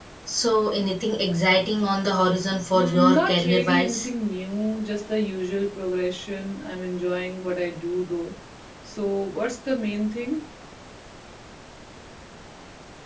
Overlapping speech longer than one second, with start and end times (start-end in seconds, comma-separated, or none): 2.7-4.1